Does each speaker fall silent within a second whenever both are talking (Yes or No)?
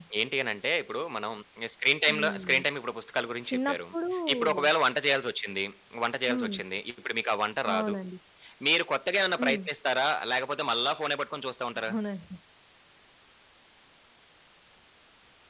Yes